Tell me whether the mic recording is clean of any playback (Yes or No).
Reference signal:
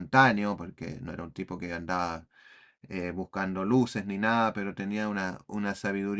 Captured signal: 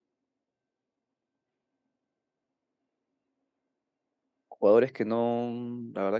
Yes